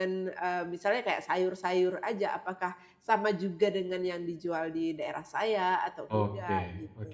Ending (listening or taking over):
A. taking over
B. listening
A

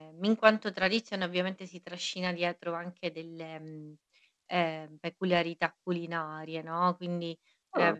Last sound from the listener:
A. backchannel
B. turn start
A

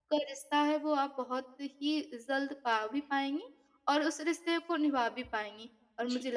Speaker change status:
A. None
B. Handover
A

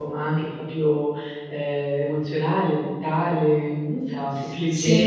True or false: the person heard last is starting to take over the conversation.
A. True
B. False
B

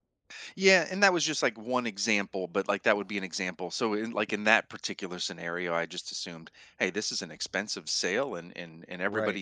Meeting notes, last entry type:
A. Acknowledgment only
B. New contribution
A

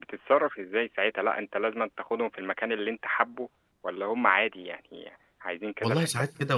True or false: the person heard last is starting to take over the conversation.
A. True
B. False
A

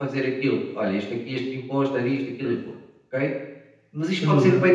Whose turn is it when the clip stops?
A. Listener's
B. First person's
B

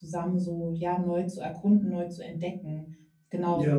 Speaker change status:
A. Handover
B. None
B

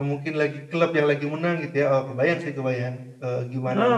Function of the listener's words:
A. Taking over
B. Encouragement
A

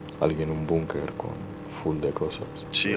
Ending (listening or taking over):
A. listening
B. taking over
B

